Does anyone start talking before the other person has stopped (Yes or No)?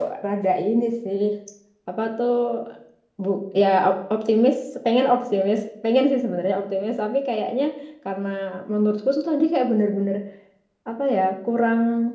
No